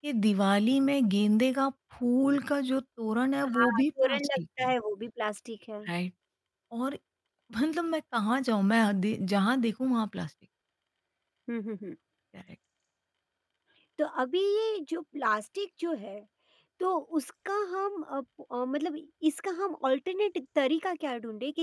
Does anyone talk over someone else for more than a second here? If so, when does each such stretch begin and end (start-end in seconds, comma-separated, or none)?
3.4-4.7